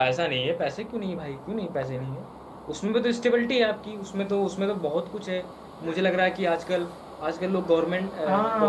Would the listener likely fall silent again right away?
No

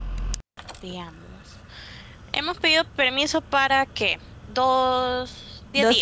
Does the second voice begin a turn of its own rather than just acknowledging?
Yes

